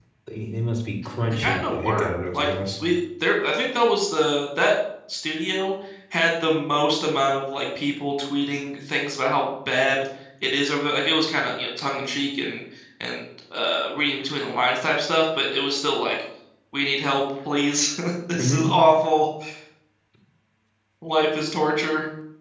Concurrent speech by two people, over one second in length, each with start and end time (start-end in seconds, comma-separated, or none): 1.3-2.5